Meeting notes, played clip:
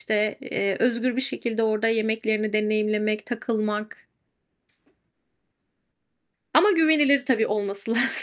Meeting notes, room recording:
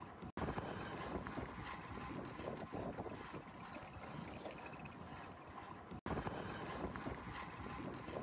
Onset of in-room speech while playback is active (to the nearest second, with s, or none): none